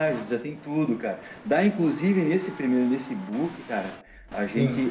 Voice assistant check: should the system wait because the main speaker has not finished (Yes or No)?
Yes